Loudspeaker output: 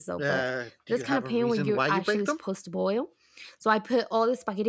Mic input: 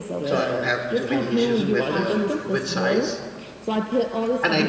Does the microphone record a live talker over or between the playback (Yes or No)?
Yes